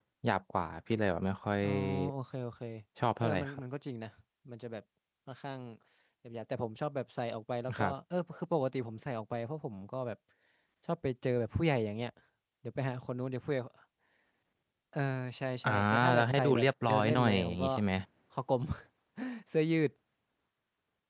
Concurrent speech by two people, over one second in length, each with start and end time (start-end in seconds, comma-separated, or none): 15.7-17.7